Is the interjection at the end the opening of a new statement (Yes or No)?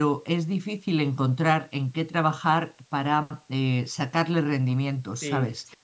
Yes